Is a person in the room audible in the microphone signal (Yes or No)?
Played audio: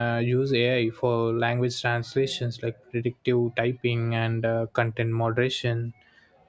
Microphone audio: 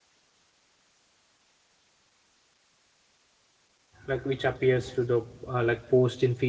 Yes